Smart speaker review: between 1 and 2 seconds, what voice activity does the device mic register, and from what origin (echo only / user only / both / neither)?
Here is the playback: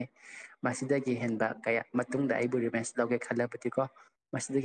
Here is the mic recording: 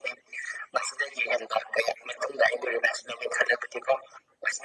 echo only